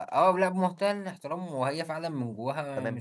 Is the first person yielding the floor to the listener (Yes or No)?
Yes